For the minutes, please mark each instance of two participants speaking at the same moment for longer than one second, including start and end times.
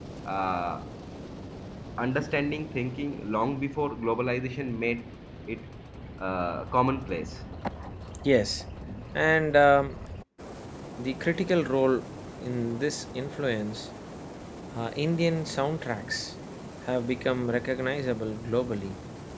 none

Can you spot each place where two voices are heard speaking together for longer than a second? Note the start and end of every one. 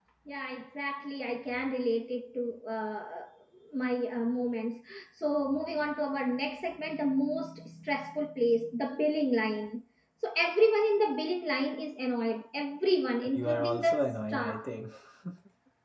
13.3-14.6

